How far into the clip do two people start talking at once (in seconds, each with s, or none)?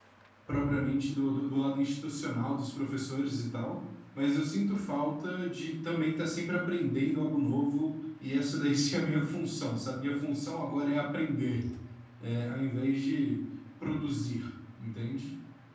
none